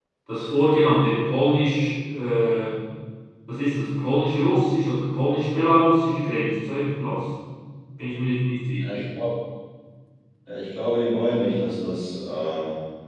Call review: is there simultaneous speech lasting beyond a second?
No

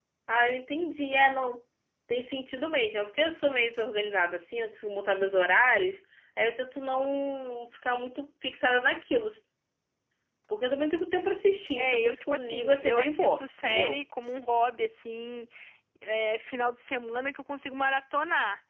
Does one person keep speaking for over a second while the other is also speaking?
Yes, from 11.8 s

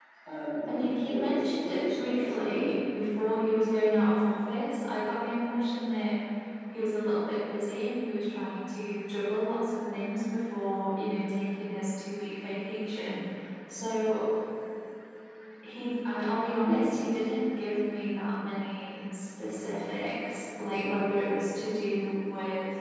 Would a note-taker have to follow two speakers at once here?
Yes, from 0.7 s

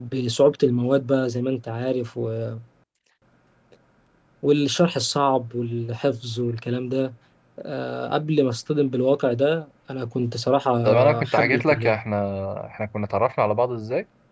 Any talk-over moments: Yes, from 10.8 s

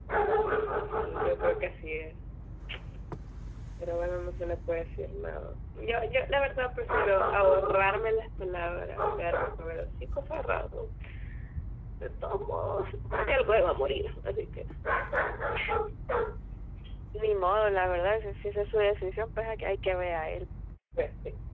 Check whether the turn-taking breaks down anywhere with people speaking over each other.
No

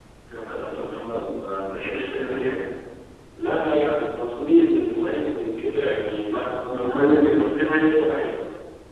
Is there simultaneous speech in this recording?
Yes, from 6.3 s

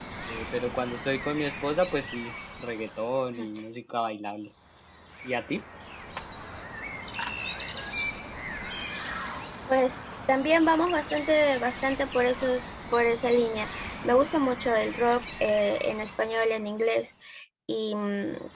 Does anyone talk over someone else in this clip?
No

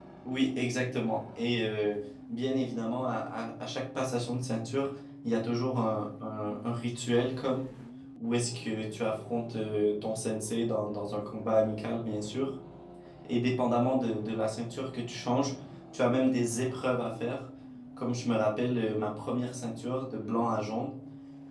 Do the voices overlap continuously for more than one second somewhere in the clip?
No

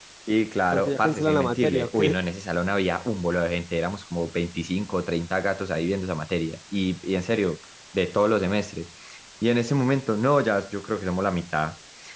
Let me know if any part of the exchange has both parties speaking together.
Yes, from 0.7 s

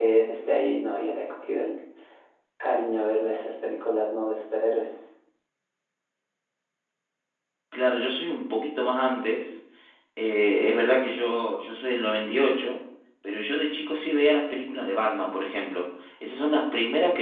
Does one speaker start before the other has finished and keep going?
No

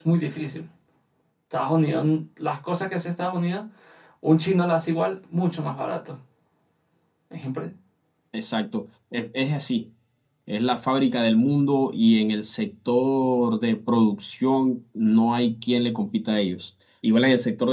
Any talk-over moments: No

